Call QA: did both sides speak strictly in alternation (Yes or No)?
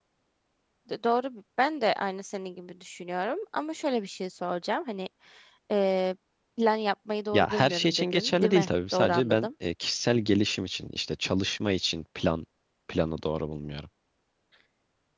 No